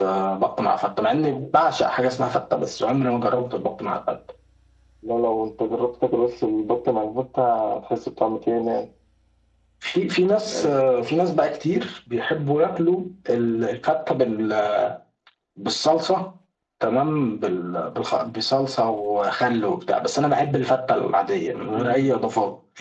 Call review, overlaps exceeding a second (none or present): none